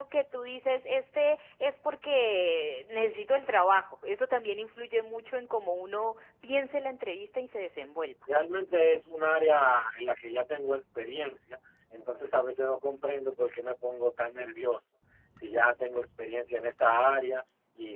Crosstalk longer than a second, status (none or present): none